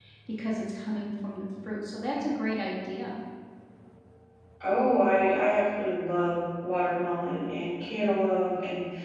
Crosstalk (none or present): none